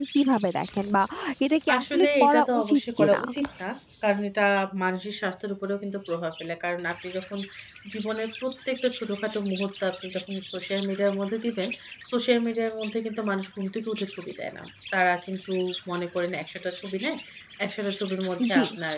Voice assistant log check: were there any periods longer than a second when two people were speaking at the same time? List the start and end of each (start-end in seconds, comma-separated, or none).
1.8-3.2